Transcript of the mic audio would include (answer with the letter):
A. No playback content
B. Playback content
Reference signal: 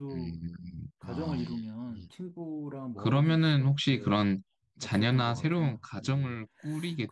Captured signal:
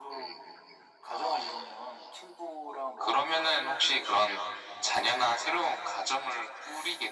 B